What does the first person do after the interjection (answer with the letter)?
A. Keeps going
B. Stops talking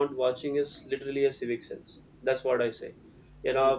A